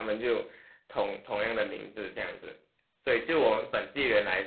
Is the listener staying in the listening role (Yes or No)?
Yes